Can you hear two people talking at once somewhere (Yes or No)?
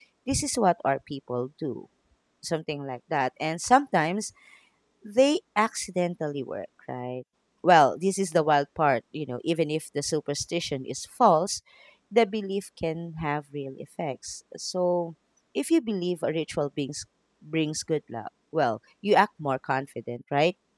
No